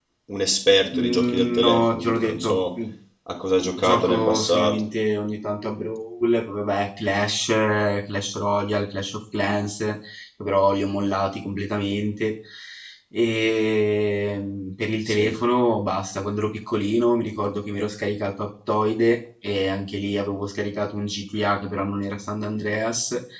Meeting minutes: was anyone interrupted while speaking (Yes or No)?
Yes